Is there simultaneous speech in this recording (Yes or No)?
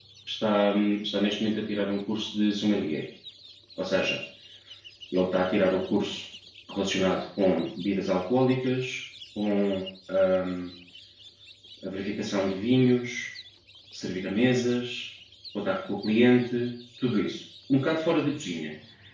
No